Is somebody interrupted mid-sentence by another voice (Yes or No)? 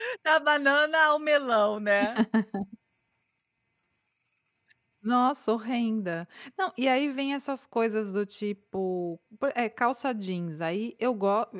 No